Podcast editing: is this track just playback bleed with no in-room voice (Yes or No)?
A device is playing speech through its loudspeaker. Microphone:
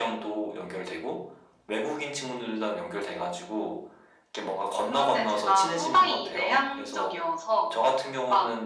Yes